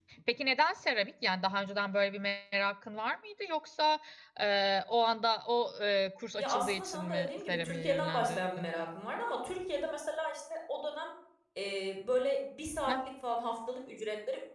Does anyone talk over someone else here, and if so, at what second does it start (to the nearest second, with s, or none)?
6 s